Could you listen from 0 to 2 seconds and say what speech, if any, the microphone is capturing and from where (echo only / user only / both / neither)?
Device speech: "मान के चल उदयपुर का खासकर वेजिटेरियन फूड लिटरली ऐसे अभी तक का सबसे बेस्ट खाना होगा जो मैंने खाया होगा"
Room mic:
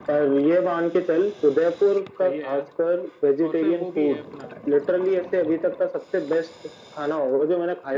echo only